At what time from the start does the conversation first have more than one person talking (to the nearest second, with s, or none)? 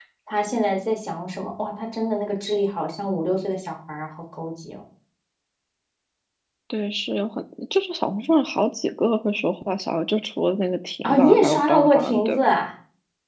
11 s